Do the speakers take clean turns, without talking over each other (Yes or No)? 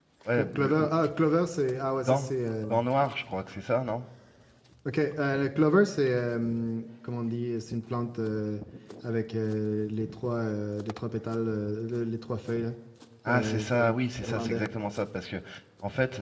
No